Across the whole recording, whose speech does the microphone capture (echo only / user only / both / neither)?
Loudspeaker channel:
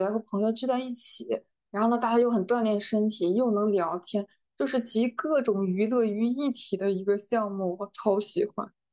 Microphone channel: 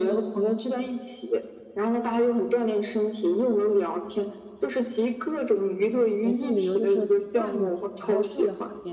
both